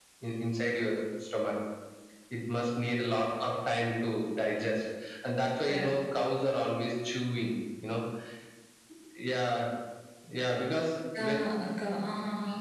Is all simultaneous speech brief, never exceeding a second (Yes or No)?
Yes